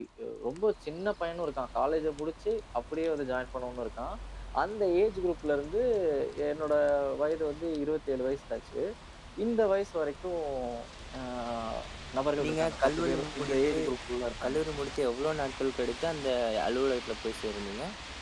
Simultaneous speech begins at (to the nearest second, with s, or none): 12 s